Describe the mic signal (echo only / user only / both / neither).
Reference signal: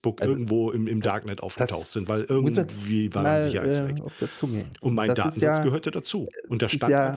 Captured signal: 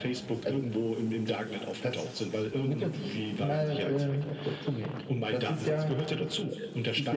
echo only